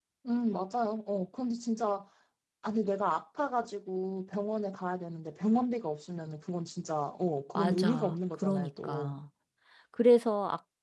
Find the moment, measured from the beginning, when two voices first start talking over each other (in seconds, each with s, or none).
7.5 s